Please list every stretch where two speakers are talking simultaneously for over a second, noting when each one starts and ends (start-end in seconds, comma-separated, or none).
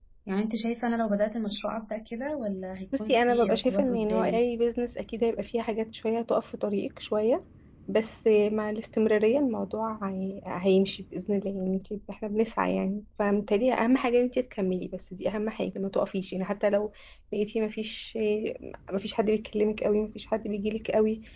3.0-4.4